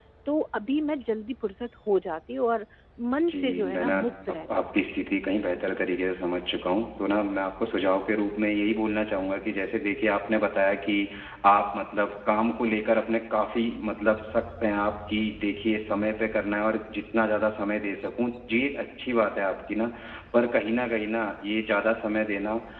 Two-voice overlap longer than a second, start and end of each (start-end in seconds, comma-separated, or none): 3.3-4.7